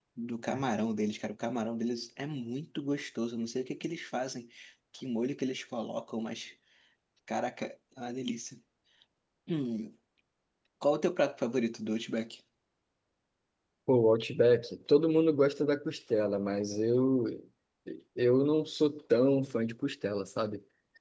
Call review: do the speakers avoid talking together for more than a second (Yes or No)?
Yes